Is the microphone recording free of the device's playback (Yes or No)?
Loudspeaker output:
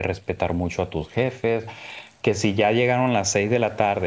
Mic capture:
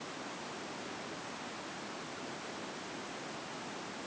Yes